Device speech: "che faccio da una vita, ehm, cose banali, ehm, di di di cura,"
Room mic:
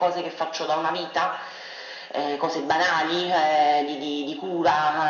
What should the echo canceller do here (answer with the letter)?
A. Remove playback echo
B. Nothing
A